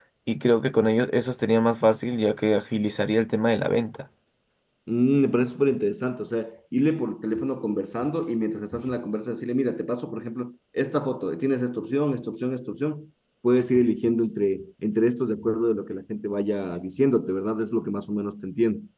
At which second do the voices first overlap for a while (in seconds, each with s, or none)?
none